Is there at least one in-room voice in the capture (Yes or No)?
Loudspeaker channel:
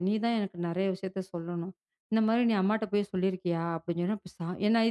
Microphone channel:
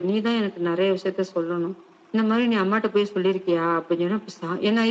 No